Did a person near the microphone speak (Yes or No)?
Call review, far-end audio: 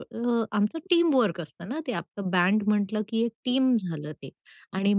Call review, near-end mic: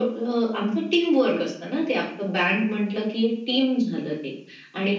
No